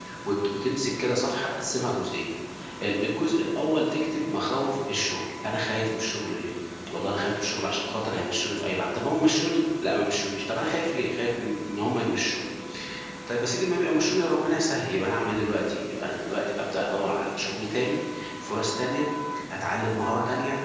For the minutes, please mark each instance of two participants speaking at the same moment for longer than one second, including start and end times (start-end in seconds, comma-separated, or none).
none